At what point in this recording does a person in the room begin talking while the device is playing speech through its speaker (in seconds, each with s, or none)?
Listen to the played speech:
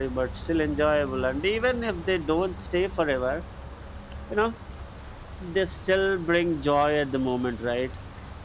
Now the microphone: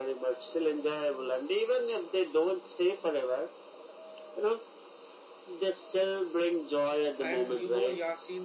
7.2 s